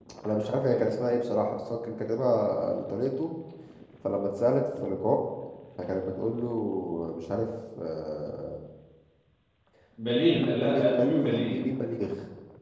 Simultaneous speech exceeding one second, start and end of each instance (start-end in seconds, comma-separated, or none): 10.3-11.6